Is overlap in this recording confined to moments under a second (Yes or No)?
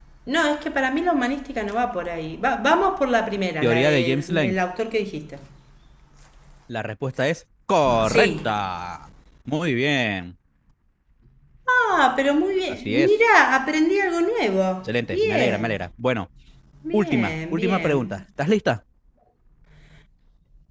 No